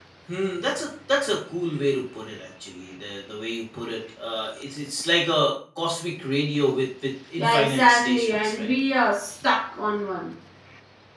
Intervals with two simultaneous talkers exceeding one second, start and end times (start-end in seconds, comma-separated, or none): 7.4-8.7